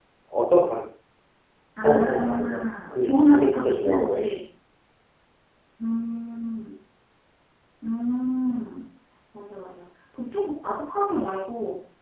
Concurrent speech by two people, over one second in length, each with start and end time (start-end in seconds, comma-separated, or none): 1.8-4.2